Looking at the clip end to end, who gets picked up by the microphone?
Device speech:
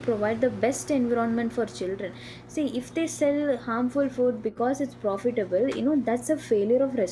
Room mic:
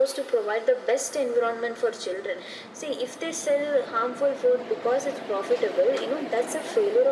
echo only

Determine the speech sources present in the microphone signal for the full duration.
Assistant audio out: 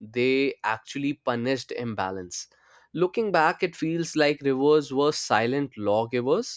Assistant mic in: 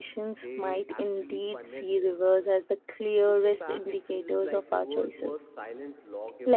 both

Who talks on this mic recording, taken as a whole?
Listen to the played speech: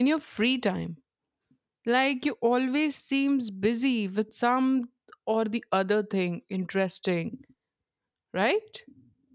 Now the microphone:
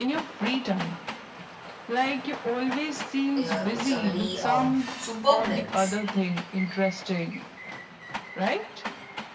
both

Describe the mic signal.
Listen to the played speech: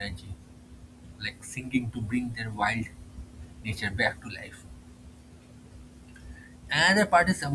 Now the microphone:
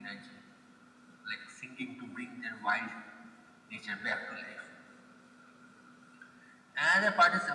echo only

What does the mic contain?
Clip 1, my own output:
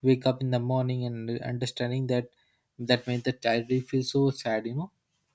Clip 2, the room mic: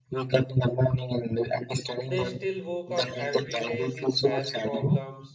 both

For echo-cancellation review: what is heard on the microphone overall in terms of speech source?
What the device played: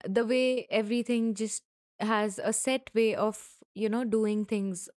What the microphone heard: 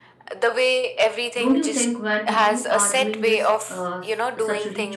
both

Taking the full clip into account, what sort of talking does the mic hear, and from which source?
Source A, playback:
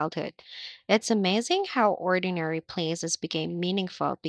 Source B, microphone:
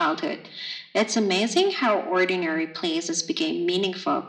echo only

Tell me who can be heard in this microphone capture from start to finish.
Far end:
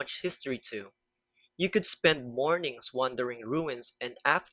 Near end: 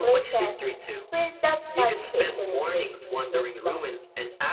both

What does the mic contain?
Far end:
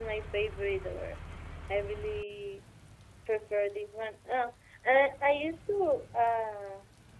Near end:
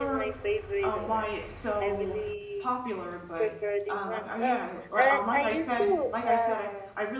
both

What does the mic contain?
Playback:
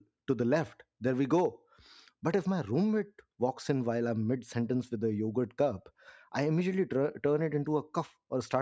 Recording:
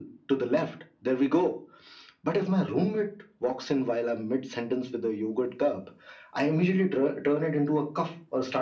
echo only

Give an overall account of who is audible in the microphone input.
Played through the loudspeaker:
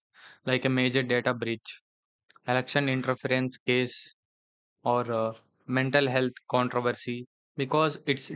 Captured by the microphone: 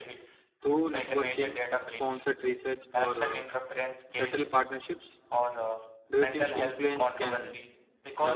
both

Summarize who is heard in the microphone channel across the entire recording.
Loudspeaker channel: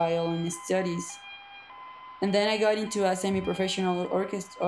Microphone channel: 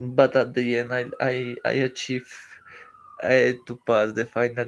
user only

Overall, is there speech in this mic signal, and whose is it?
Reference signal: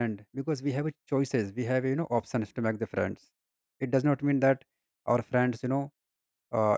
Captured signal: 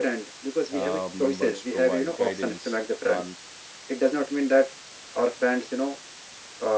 both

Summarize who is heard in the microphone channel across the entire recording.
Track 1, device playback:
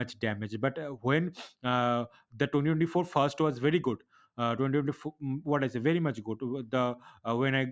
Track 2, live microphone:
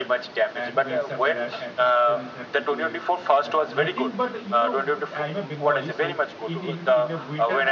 both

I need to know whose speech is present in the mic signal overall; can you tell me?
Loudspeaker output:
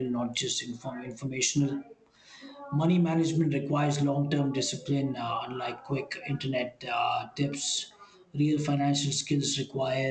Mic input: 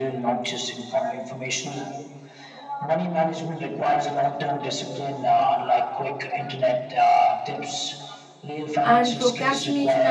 both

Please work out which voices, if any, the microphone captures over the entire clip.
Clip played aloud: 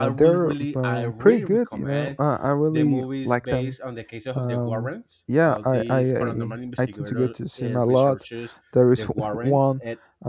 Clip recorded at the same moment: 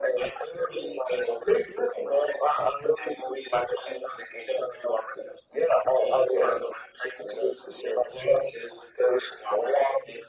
echo only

